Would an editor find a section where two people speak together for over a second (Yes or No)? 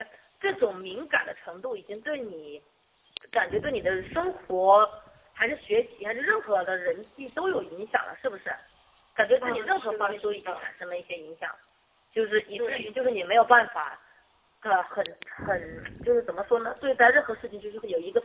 Yes